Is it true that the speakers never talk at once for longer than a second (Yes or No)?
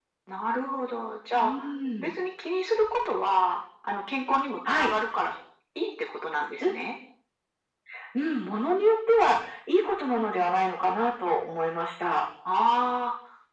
Yes